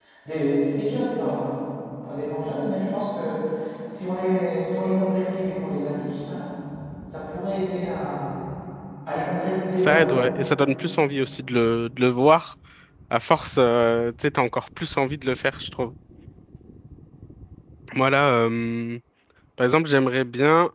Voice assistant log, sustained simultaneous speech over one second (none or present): none